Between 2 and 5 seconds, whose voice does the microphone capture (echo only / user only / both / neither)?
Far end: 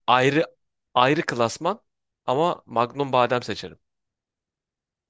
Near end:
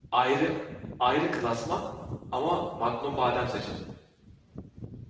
echo only